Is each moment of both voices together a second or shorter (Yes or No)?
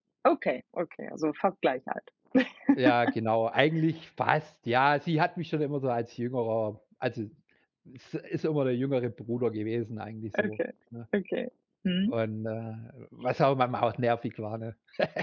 Yes